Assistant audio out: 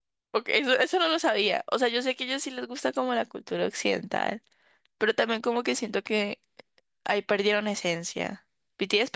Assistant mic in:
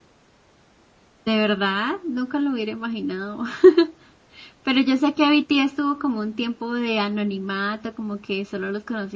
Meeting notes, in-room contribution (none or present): present